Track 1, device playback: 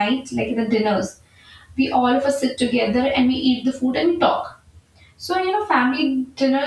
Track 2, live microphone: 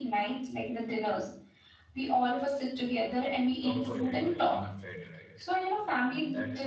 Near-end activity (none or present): present